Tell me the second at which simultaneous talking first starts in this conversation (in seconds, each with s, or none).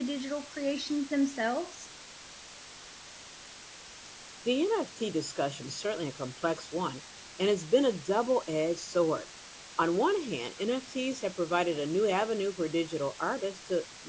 none